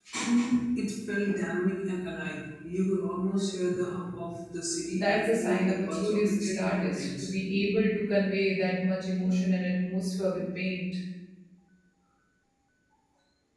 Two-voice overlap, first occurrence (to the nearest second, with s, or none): 5 s